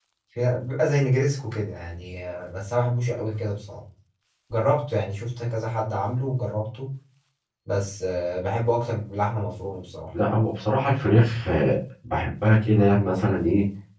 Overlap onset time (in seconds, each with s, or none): none